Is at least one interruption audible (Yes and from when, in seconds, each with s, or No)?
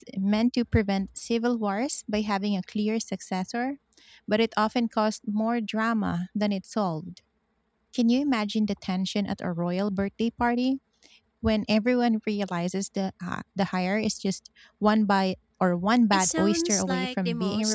Yes, from 16.1 s